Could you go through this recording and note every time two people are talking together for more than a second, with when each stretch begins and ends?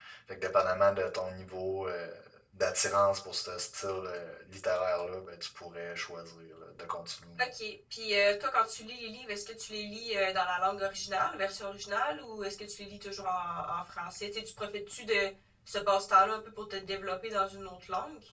none

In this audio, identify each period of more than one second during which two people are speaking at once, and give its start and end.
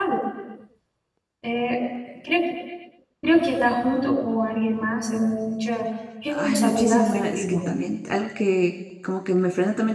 6.3-7.6

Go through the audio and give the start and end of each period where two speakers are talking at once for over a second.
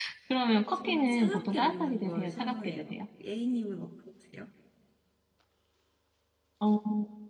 0.8-2.9

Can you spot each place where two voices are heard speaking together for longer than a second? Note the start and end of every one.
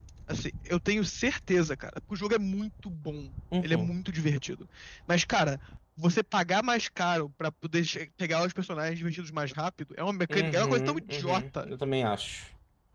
10.3-11.7

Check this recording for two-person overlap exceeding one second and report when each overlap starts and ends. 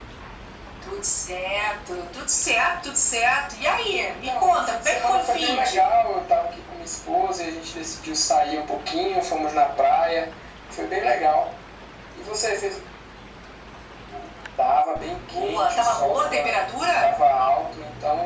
4.1-6.0, 15.3-16.5

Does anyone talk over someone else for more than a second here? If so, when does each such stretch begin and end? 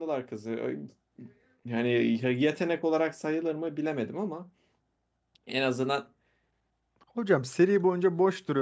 none

